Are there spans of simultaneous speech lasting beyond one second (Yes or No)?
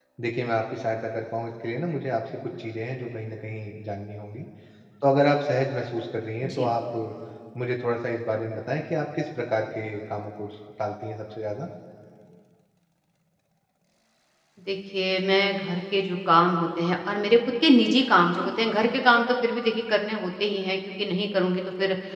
No